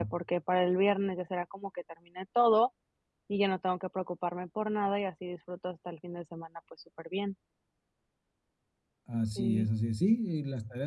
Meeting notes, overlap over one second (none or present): none